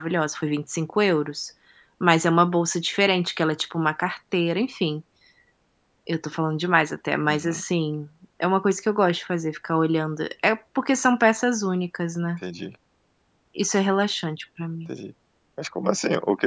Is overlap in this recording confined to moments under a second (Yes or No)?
Yes